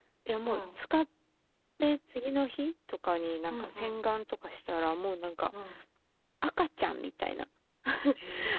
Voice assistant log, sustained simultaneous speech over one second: none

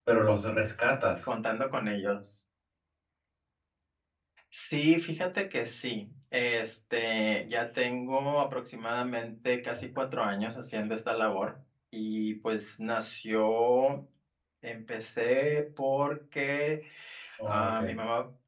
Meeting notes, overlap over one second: none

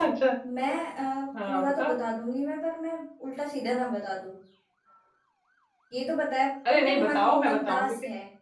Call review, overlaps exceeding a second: present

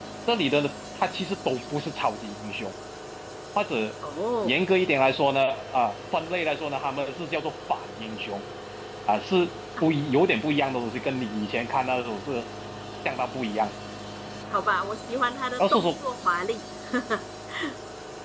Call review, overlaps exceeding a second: none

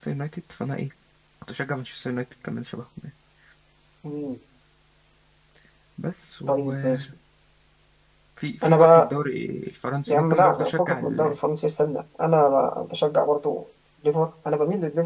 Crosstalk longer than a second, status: present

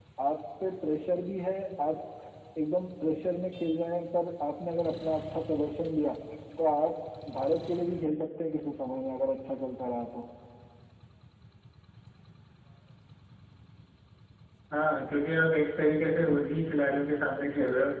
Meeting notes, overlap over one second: none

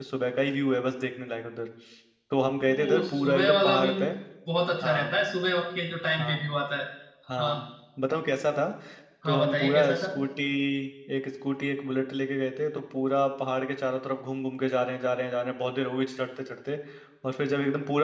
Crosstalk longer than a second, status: present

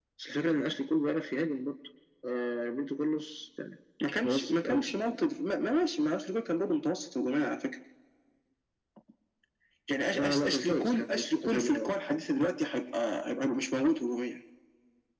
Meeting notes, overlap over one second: present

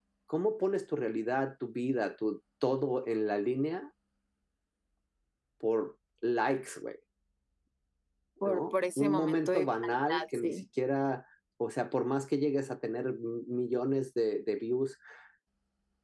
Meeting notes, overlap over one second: present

